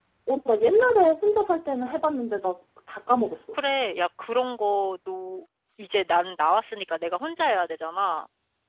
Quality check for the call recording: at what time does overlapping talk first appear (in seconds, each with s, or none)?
none